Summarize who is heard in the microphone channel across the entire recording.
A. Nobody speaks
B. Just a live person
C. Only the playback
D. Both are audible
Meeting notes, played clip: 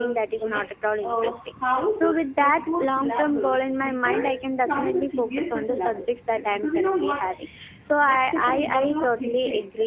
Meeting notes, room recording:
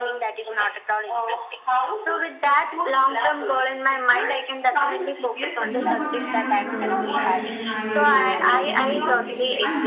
D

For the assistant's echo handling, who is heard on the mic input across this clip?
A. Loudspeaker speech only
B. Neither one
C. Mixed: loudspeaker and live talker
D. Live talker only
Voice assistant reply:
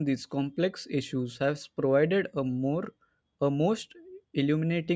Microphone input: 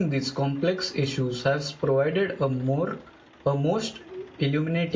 A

